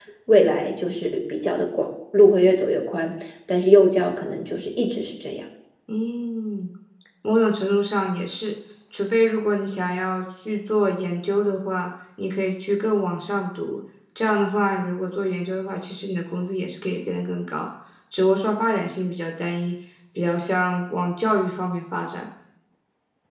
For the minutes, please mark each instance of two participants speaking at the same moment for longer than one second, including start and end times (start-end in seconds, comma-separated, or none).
none